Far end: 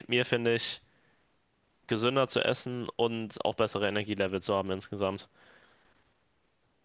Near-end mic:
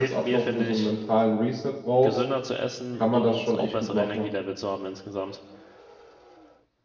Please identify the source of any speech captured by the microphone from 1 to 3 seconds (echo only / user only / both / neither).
both